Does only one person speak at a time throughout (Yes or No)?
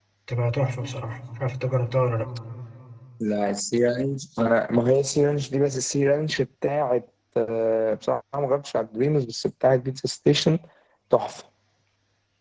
Yes